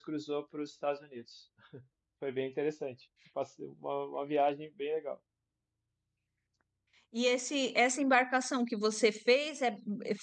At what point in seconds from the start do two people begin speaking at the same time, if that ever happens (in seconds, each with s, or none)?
none